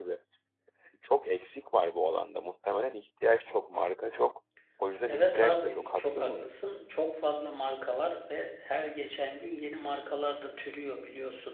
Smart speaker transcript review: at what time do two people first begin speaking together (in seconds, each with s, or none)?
5.0 s